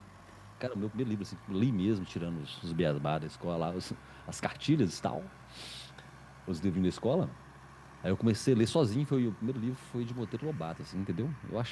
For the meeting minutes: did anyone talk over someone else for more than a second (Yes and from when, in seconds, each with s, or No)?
No